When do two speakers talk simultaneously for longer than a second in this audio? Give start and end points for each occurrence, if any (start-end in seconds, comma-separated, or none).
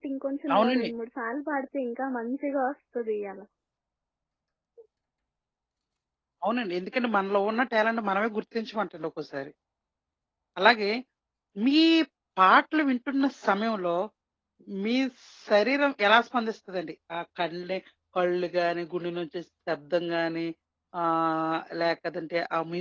none